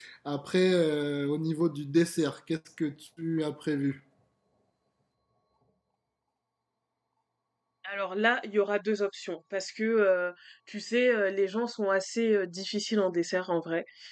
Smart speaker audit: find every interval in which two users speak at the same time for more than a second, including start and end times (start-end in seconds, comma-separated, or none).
none